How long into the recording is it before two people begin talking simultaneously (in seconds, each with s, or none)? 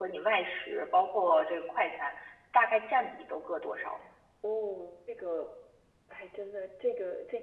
none